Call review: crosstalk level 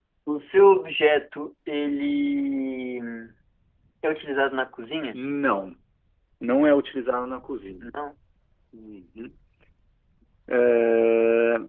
none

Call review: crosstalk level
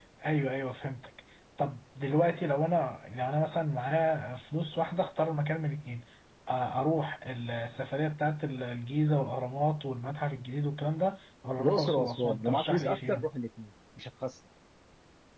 present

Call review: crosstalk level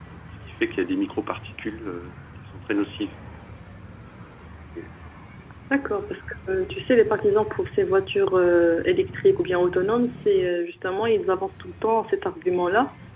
none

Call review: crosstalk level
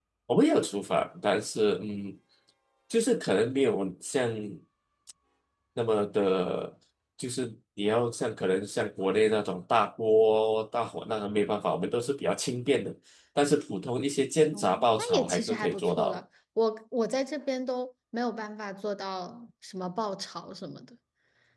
present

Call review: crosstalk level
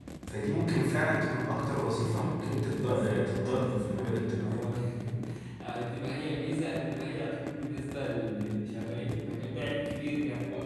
present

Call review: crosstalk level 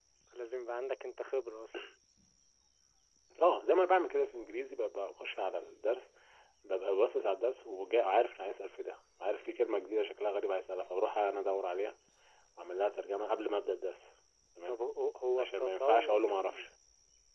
present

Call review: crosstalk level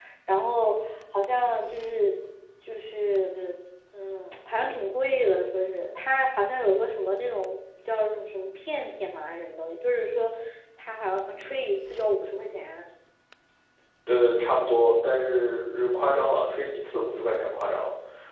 none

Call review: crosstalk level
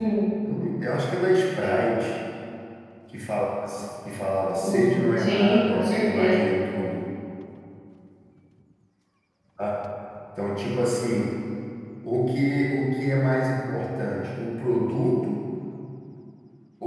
present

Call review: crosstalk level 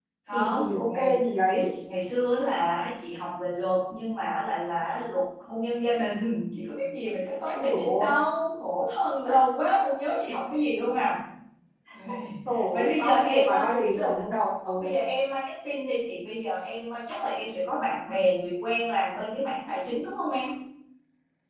present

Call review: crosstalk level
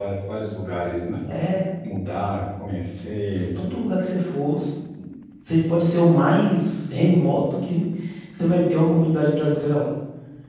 none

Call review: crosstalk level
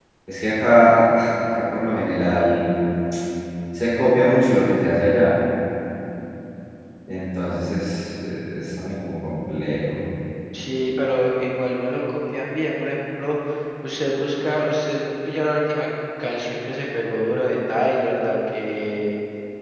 none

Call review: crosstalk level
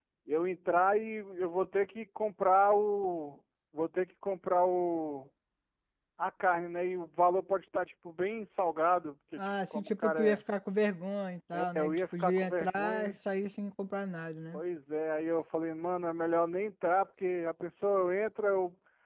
present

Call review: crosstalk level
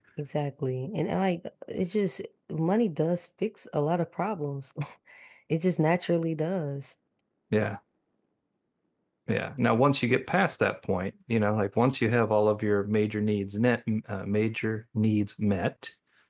none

